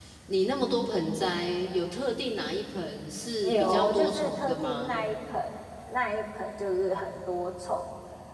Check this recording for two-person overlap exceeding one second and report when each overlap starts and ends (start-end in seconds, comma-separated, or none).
3.4-5.1